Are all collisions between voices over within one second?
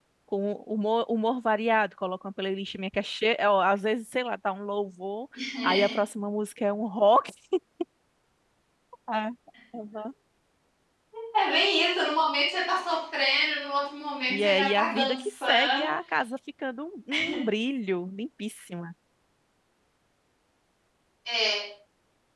No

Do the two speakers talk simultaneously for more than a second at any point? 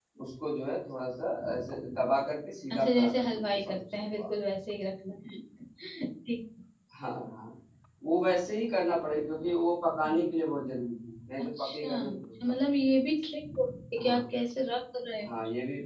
Yes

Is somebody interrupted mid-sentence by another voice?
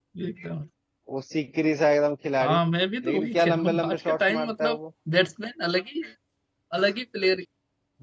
Yes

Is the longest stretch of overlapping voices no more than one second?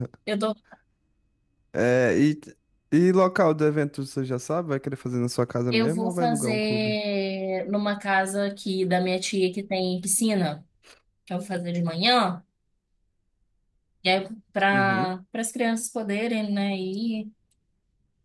No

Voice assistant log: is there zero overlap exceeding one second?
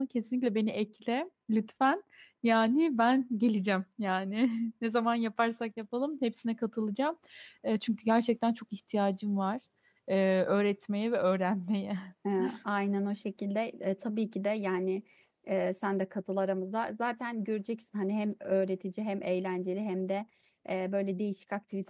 Yes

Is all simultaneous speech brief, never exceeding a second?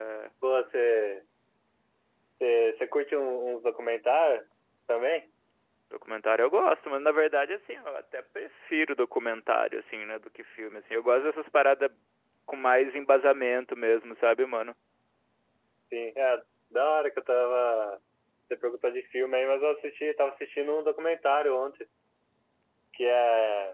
Yes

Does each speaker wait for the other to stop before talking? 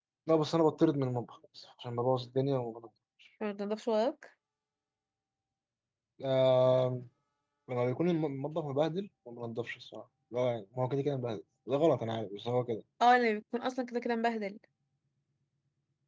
Yes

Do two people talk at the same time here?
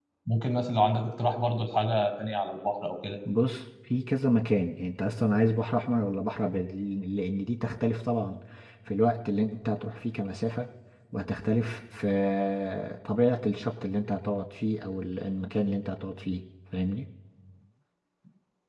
No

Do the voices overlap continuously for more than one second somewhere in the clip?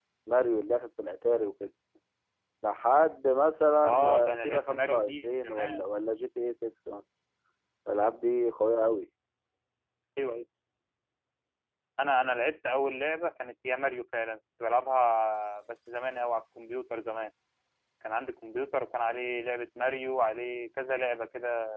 Yes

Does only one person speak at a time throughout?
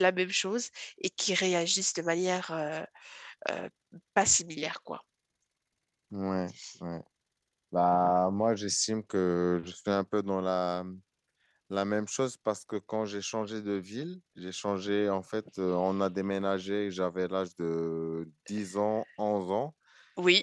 Yes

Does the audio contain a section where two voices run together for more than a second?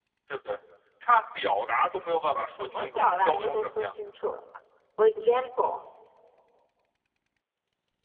Yes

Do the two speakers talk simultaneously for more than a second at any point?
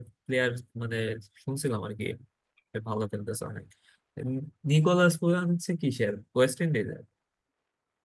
No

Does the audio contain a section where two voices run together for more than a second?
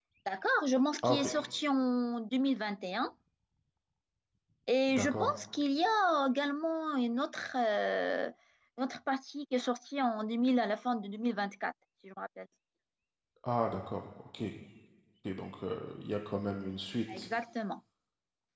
No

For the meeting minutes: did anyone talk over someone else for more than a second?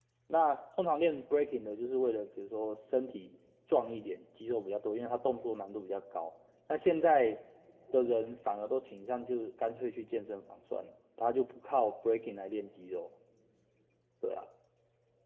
No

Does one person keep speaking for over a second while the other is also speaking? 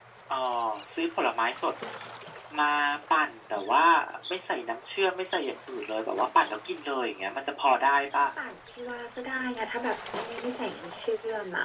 No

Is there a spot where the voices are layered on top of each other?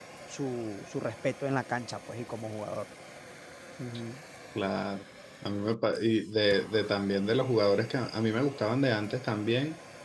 No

